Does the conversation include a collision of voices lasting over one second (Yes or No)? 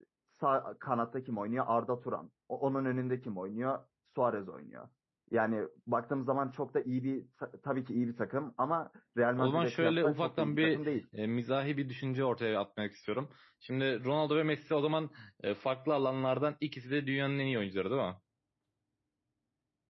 Yes